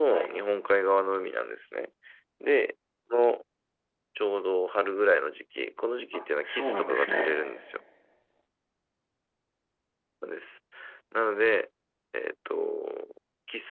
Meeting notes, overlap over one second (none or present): present